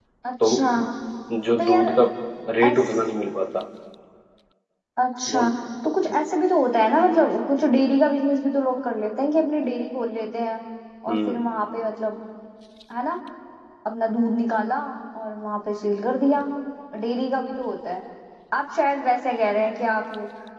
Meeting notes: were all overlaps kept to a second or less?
Yes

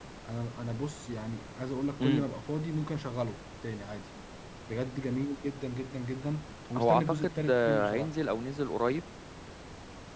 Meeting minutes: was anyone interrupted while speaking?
Yes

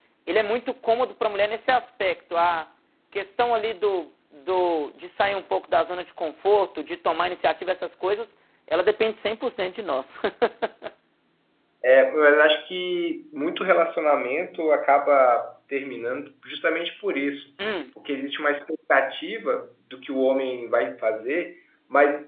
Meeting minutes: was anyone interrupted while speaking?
No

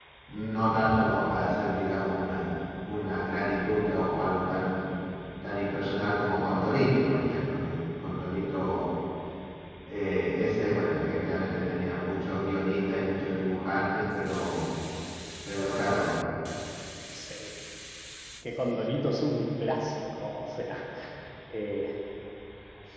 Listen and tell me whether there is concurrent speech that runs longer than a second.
No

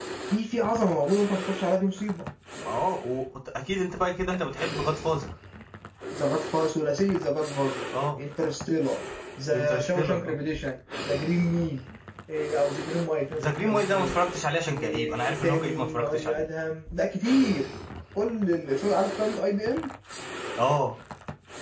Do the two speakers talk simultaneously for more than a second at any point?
Yes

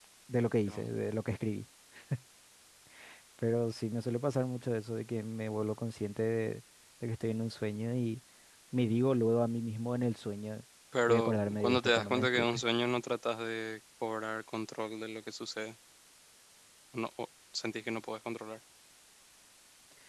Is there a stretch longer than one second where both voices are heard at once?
Yes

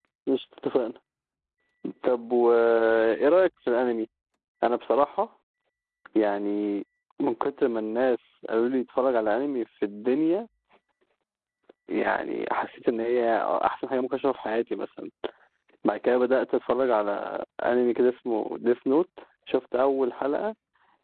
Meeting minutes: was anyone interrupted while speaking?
No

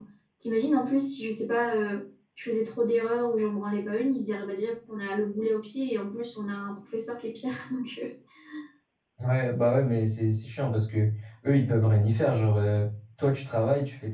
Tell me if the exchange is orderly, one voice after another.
Yes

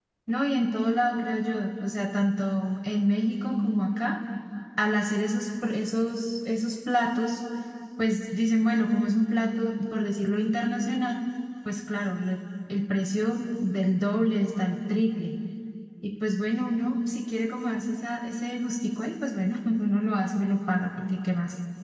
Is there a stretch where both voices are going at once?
No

